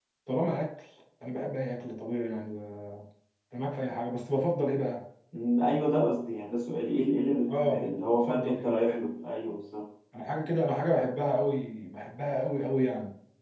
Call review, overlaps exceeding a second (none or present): present